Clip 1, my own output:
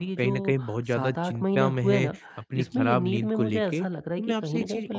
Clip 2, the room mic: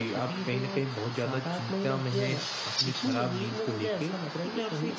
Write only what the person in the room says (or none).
none